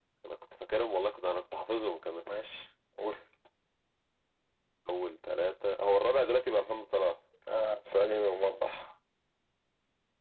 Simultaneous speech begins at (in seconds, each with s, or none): none